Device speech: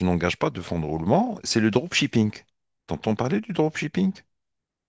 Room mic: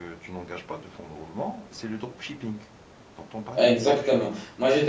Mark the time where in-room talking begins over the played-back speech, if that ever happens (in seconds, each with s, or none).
3.6 s